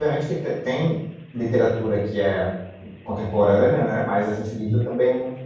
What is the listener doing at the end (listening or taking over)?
listening